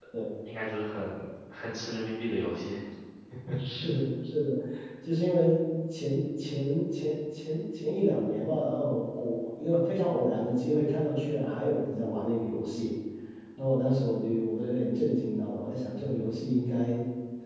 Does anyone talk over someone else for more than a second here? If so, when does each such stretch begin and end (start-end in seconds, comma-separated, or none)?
none